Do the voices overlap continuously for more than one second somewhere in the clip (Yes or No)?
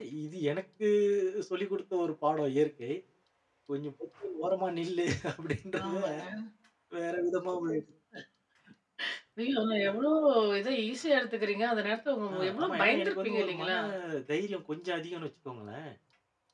Yes